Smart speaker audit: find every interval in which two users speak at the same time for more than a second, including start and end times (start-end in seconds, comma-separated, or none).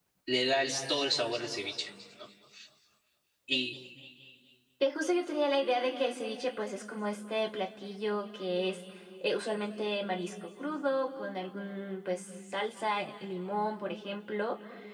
none